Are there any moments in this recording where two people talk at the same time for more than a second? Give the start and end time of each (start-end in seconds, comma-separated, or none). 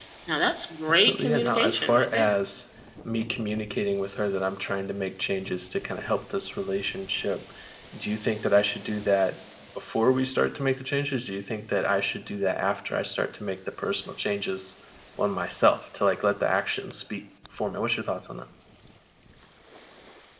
0.9-2.3